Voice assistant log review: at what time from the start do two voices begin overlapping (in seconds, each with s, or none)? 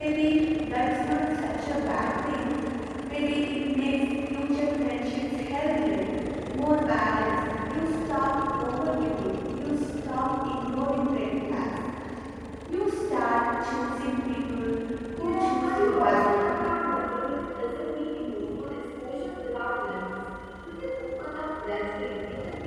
15.2 s